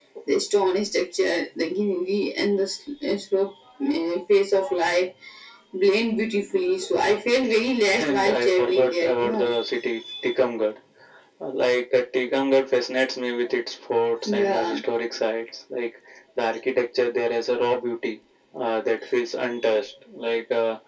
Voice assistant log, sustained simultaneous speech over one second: present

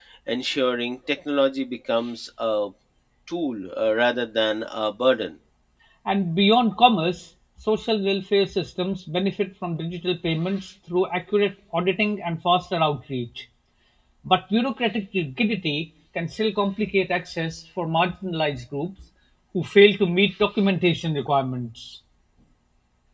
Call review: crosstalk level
none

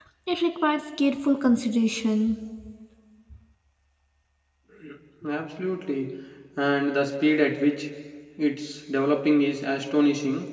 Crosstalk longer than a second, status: none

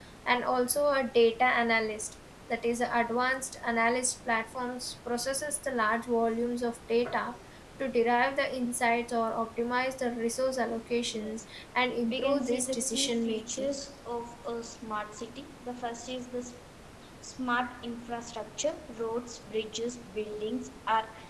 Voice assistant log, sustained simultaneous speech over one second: present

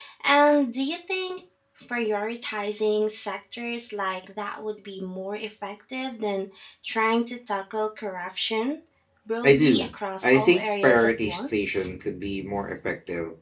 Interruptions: present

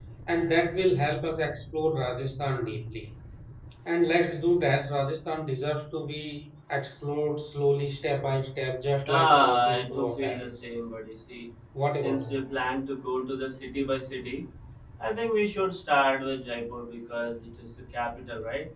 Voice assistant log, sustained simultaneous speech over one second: present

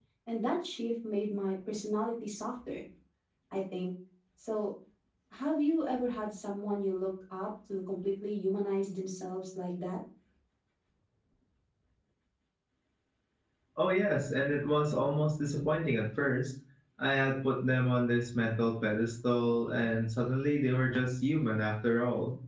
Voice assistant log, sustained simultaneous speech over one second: none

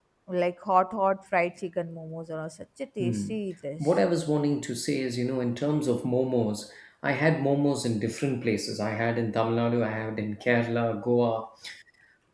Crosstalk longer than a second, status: none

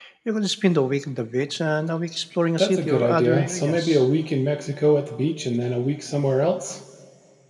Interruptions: present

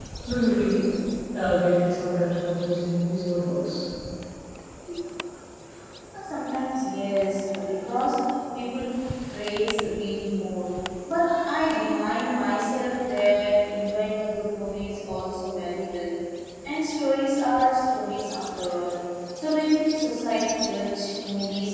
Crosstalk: none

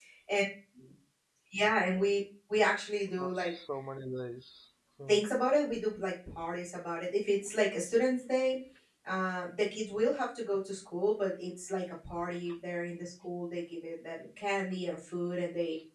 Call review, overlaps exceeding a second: none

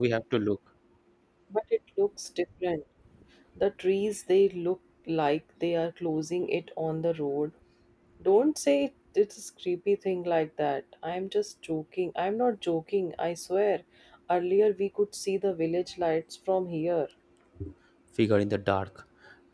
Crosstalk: none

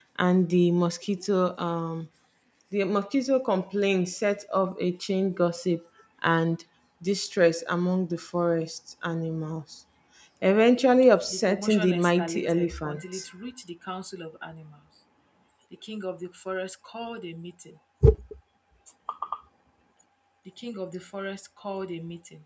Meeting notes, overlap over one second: present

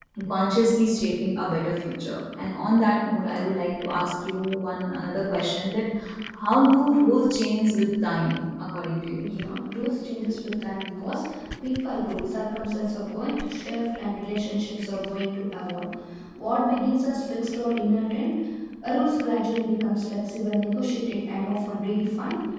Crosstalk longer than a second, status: none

